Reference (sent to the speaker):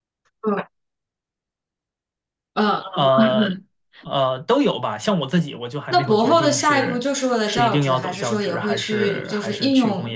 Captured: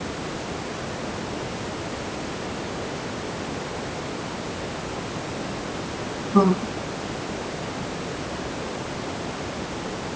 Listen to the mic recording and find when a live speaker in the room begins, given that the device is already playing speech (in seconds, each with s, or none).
6.3 s